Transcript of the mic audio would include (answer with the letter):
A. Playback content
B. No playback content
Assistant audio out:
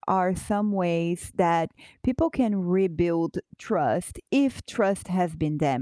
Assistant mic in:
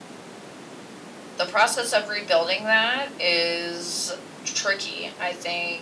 B